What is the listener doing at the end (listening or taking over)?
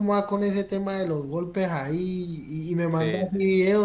listening